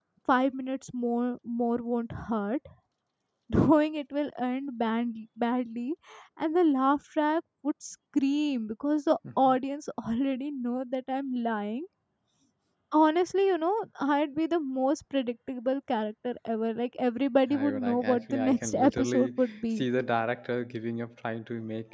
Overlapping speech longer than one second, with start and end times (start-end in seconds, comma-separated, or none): 17.5-19.8